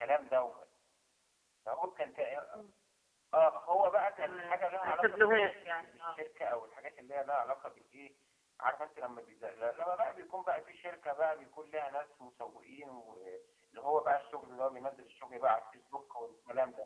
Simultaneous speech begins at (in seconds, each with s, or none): 4.2 s